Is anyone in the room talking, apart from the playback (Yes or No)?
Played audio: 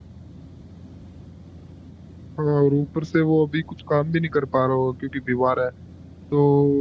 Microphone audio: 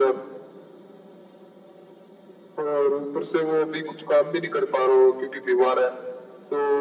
No